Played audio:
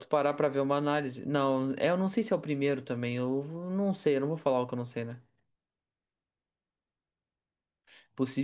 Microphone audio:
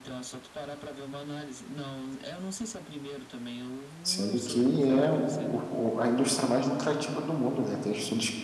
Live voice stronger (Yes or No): Yes